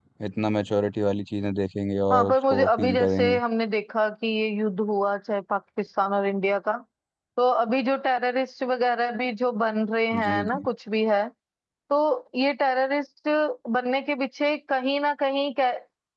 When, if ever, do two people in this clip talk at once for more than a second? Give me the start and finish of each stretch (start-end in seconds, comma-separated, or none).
2.1-3.4